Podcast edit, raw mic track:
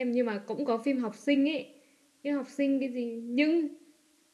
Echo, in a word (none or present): none